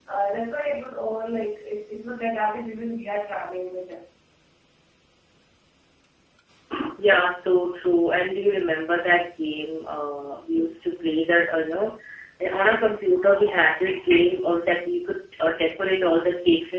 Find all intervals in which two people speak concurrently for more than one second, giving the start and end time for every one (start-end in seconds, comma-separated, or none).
none